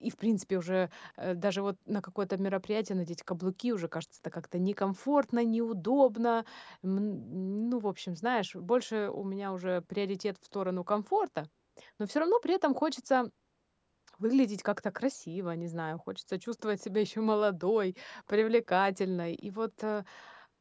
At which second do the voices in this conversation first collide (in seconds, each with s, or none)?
none